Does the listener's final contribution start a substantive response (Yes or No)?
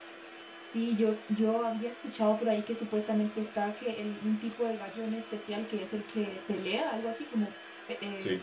Yes